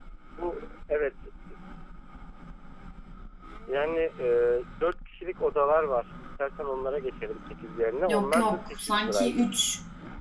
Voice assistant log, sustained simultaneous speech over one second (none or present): present